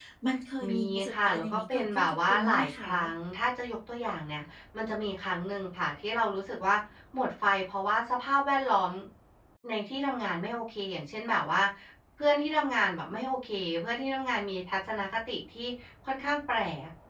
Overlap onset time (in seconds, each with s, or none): 0.7 s